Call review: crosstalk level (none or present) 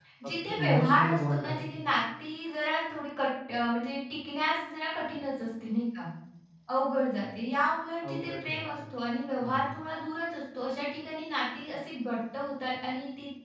present